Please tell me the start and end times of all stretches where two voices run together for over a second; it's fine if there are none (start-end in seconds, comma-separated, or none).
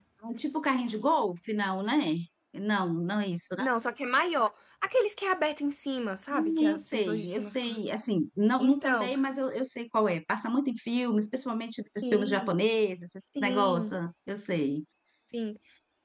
6.3-7.8